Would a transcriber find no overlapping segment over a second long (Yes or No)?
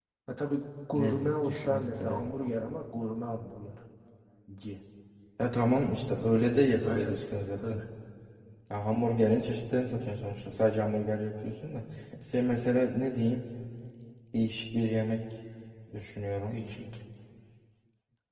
No